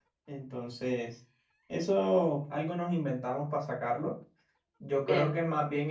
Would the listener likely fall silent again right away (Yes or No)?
Yes